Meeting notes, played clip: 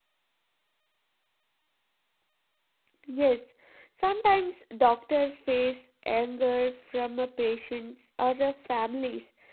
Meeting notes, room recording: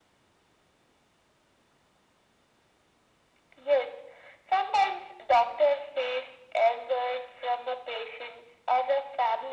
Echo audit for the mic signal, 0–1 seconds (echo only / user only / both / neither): neither